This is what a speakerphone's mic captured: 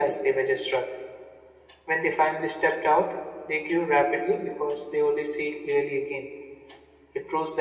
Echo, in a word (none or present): present